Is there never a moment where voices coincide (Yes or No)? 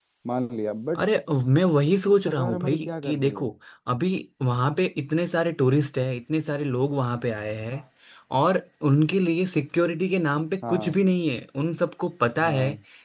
No